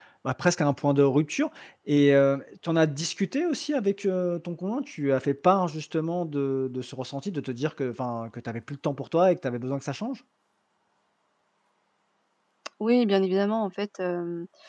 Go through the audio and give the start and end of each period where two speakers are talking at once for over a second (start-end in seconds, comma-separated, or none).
none